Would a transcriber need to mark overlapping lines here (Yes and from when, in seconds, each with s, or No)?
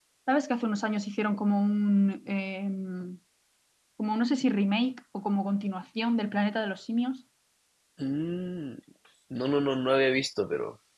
No